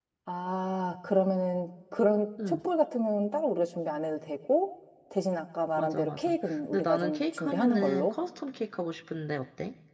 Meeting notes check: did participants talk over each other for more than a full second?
Yes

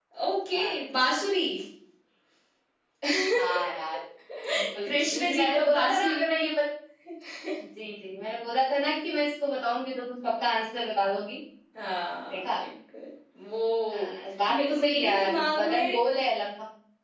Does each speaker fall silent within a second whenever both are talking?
No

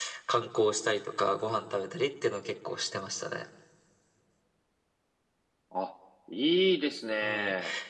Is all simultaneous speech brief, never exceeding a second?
Yes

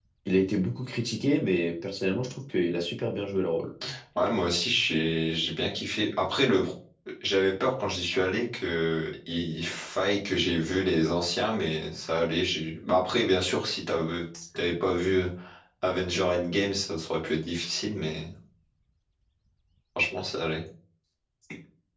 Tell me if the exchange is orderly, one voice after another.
Yes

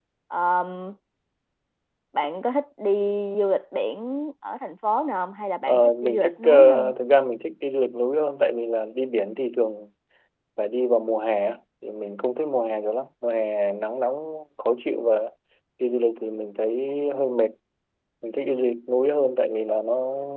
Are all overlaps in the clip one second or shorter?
No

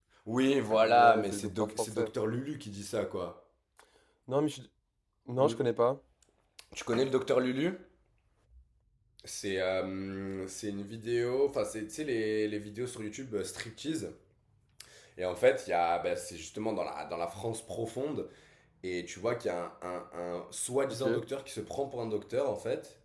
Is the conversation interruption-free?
No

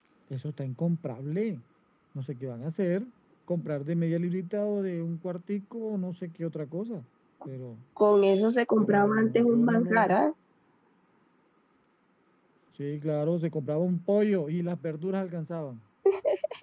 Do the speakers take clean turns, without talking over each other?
No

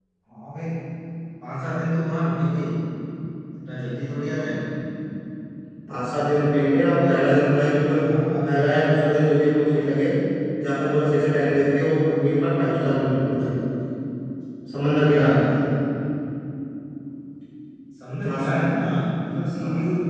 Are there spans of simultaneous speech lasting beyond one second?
No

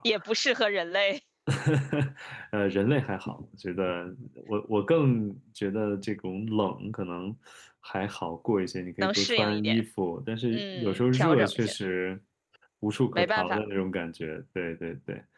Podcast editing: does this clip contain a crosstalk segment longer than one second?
Yes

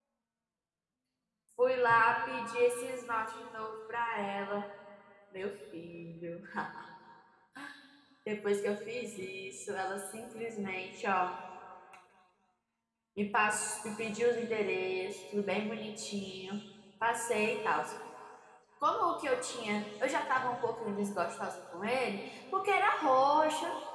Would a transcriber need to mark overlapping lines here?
No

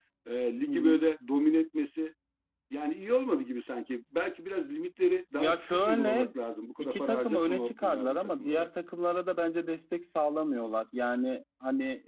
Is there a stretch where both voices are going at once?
Yes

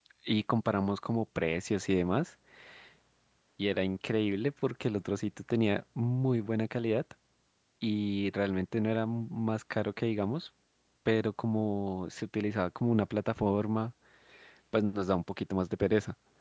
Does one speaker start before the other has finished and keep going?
No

